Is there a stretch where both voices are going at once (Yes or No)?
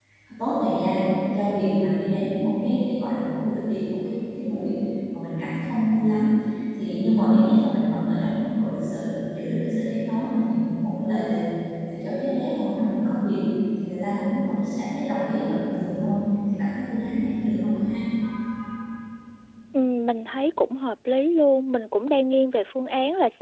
No